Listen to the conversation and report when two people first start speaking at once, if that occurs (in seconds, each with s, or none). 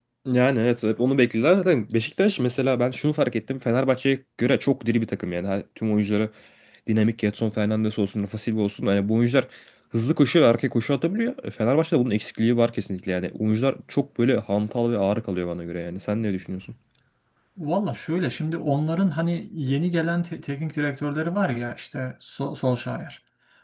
none